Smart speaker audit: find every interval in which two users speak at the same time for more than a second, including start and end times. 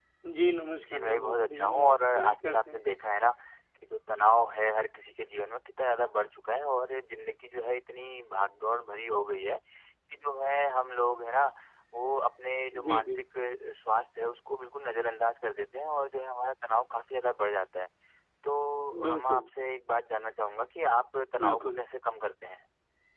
0.8-2.8

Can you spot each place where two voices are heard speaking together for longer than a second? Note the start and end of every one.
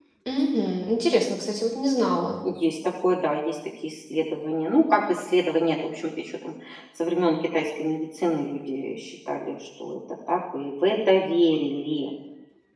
none

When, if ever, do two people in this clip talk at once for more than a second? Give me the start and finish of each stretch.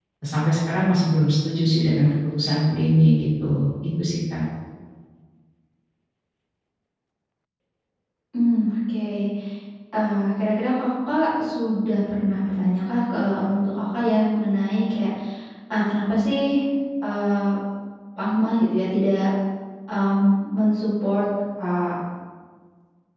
none

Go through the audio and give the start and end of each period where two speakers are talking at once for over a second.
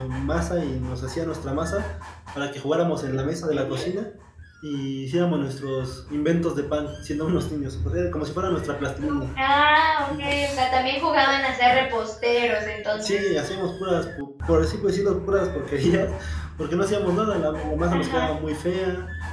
none

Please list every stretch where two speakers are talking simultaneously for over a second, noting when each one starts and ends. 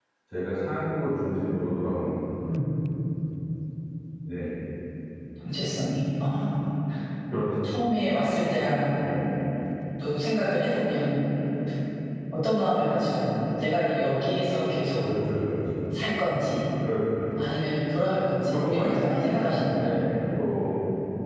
18.5-19.9

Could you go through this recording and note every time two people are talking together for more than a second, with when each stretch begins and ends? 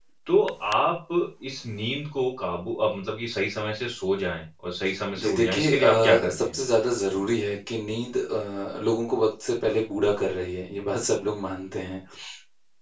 5.2-6.5

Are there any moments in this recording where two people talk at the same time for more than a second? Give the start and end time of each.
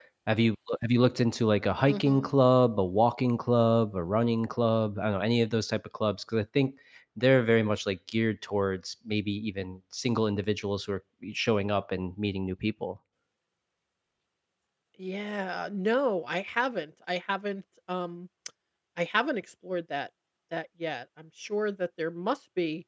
none

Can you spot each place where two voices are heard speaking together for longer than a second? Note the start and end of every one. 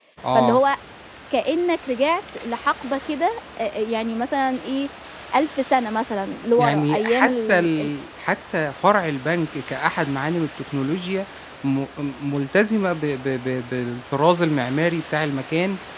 6.6-7.9

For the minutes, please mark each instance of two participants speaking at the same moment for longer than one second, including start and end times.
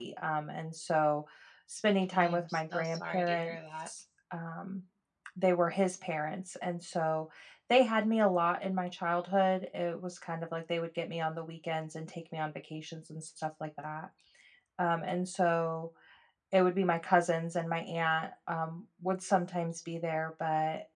2.2-3.9

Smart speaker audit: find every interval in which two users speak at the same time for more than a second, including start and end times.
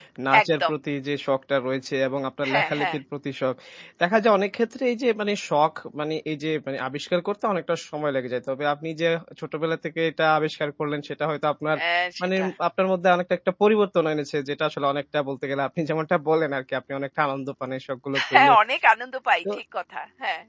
none

